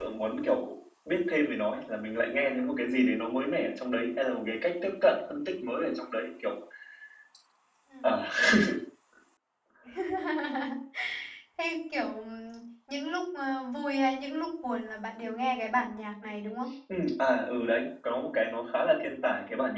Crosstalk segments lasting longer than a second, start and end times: none

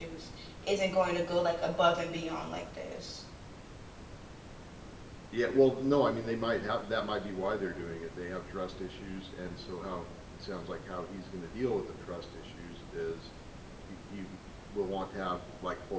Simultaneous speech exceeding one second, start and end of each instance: none

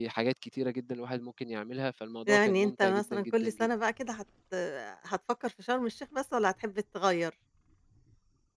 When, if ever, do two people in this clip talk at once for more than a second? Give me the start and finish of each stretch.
2.3-3.7

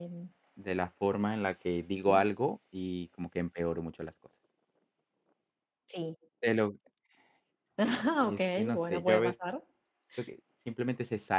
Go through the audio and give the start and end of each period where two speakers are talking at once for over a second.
7.8-9.3

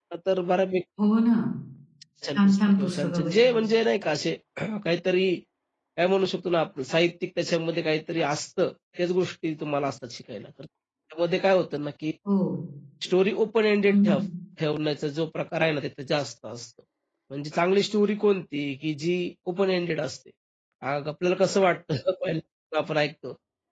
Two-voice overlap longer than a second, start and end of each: 2.3-3.6

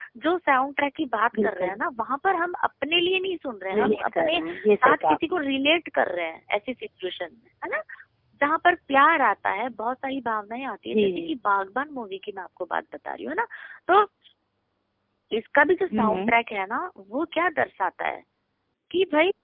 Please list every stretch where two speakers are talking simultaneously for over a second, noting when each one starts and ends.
3.8-5.4

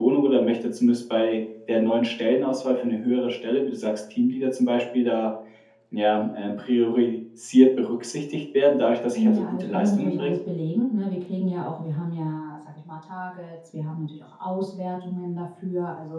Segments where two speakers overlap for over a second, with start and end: 9.1-10.3

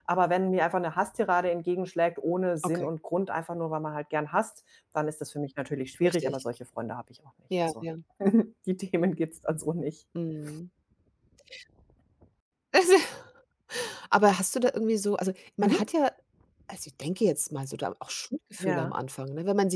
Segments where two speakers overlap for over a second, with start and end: none

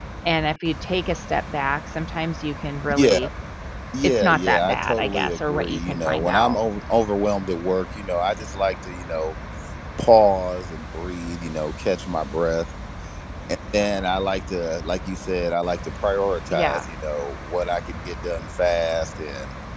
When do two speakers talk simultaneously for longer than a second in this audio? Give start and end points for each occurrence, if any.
4.0-6.6

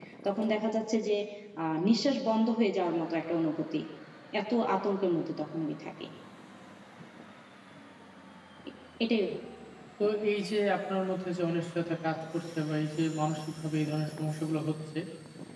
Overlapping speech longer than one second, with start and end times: none

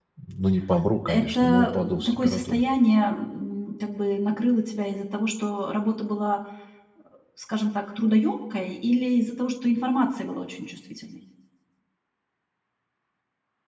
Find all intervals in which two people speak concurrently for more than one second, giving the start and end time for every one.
1.1-2.6

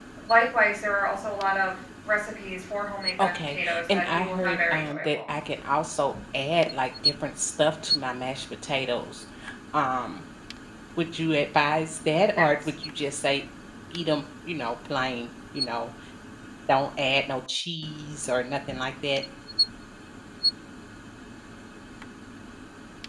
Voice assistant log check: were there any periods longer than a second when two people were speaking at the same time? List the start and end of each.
3.2-5.2

